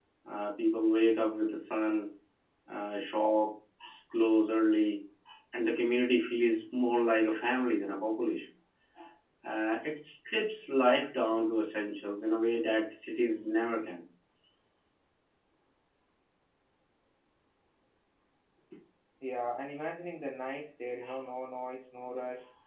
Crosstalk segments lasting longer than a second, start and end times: none

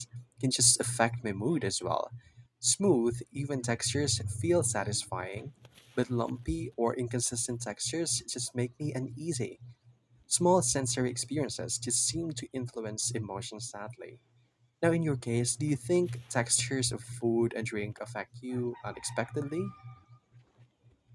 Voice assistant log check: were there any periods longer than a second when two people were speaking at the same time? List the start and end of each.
none

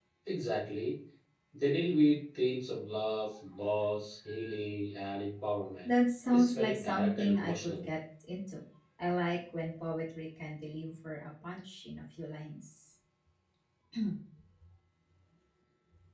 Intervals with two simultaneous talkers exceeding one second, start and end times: 6.3-7.9

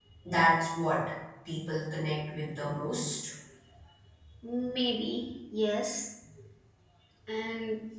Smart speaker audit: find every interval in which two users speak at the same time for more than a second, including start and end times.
none

